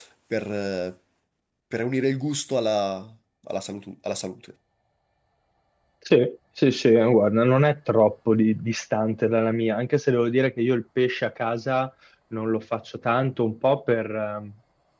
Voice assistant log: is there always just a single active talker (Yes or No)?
Yes